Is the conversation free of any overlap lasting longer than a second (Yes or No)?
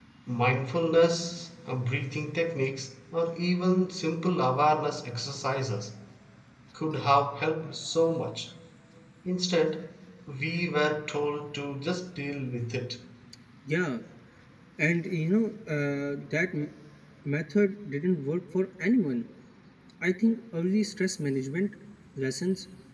Yes